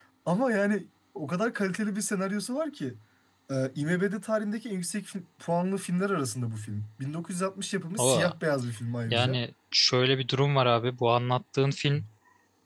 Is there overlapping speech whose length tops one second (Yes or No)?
No